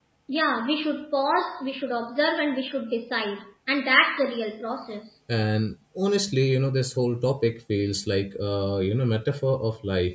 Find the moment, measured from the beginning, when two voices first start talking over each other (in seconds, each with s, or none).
none